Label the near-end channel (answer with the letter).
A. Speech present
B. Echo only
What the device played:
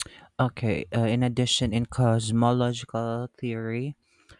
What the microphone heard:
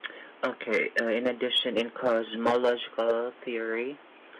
B